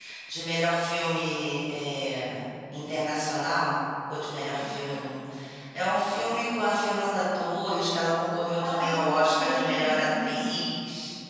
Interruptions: present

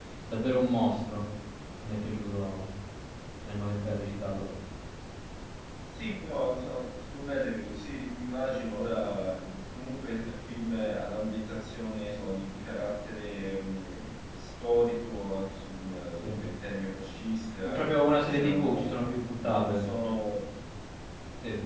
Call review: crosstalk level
present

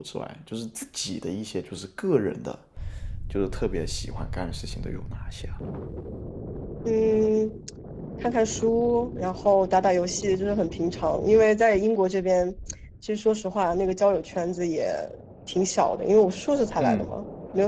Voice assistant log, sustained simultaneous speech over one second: none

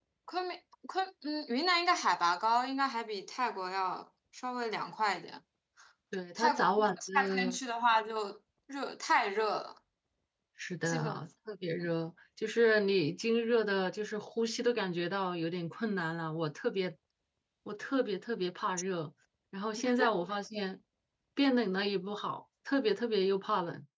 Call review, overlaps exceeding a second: present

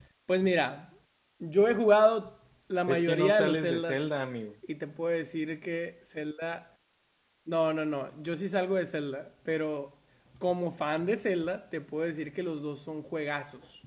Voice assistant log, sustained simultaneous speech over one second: present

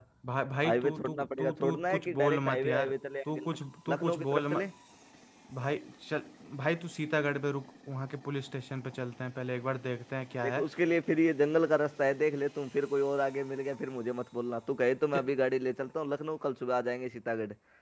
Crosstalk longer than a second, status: present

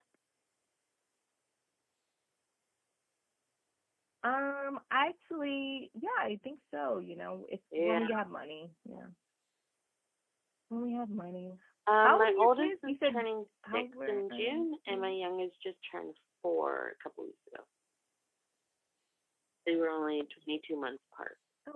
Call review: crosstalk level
present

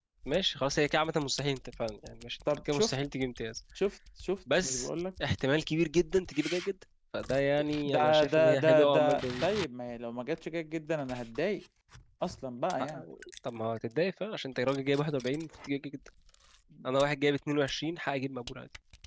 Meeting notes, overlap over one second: present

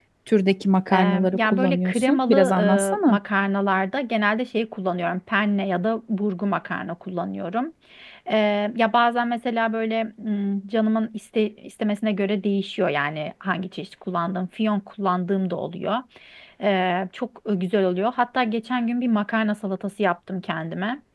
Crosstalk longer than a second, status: present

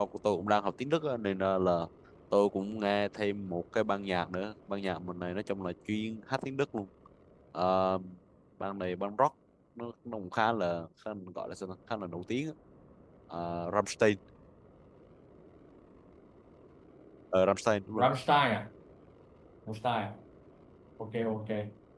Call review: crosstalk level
none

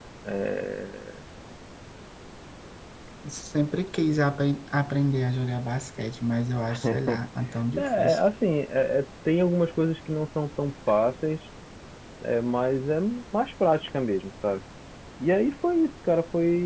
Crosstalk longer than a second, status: none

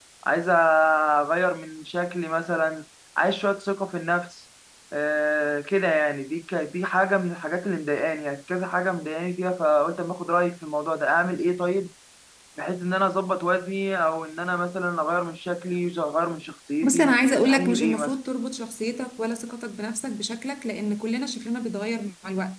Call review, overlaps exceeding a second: present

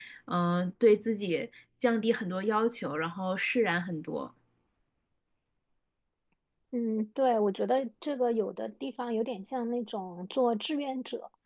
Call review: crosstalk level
none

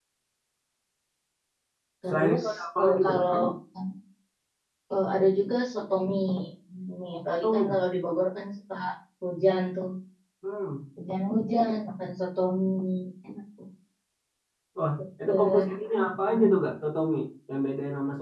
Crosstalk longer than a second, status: present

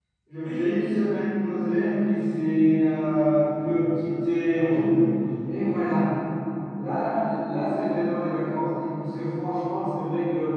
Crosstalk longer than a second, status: none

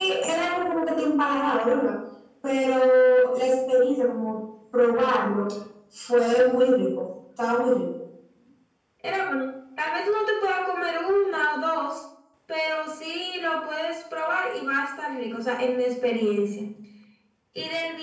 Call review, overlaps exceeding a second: none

